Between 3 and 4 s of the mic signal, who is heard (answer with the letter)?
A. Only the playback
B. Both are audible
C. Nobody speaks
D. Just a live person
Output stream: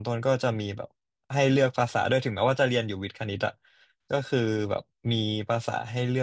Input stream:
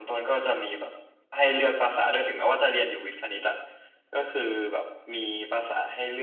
A